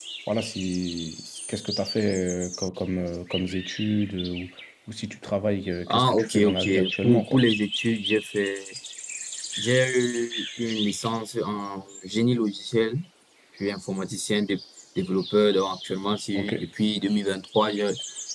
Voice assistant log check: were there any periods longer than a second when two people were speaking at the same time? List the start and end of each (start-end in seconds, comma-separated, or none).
5.9-7.4